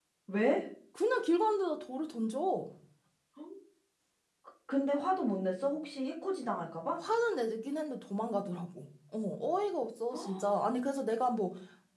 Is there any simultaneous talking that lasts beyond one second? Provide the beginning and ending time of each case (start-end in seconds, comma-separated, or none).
none